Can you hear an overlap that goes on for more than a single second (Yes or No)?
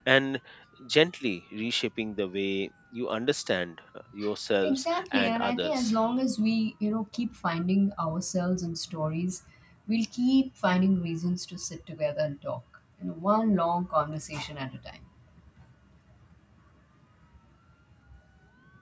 Yes